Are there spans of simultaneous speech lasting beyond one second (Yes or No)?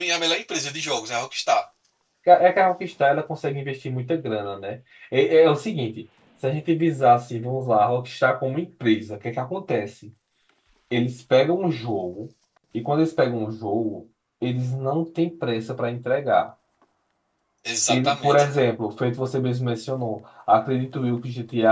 No